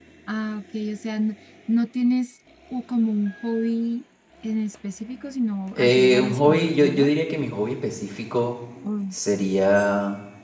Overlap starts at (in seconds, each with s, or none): 5.8 s